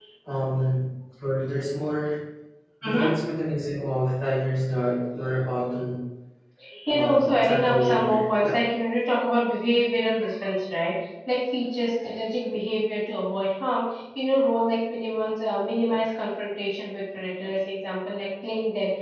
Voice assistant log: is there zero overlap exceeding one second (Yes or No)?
No